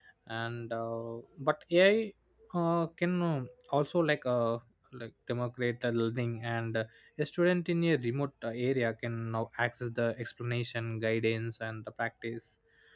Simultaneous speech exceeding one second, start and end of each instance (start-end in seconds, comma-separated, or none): none